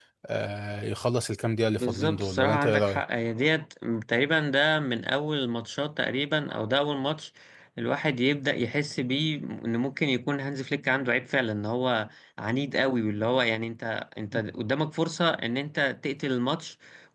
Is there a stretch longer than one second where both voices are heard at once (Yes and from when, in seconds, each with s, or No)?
Yes, from 1.8 s